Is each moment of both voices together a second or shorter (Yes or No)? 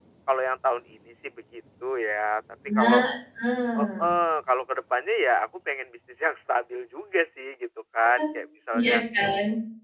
Yes